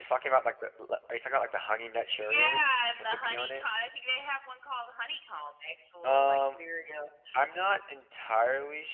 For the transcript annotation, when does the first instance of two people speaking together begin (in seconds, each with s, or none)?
2.2 s